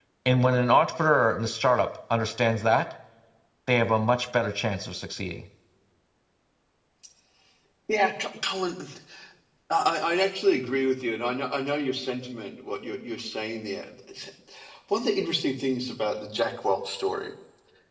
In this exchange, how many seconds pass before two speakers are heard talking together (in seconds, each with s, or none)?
none